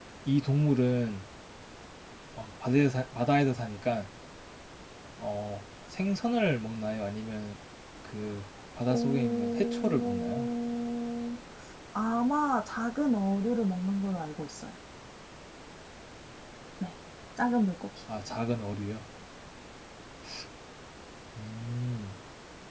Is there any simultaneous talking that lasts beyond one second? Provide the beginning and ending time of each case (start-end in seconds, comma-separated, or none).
8.9-10.5